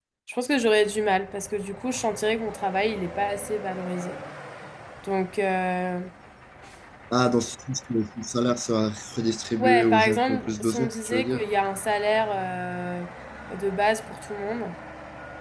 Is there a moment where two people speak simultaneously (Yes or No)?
Yes